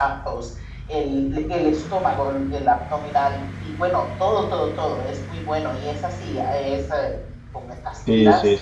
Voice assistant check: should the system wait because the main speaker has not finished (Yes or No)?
No